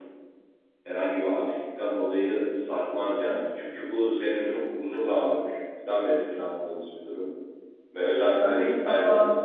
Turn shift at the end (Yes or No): Yes